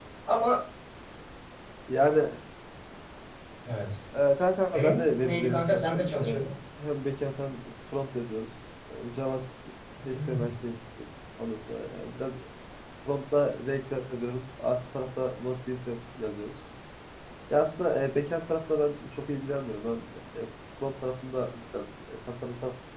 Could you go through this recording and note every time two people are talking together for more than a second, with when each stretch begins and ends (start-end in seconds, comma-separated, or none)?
4.7-6.4